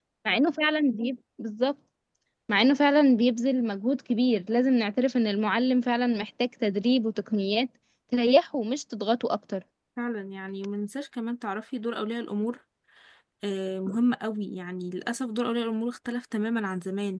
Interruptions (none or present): none